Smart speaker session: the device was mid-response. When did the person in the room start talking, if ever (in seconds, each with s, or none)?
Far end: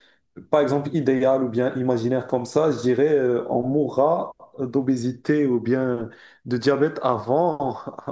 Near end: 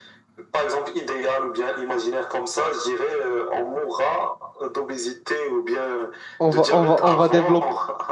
6.4 s